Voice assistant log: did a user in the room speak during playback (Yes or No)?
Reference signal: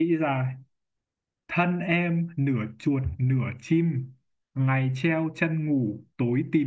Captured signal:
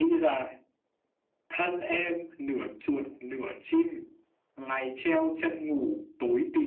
No